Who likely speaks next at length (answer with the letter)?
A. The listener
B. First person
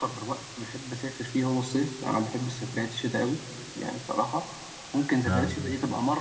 B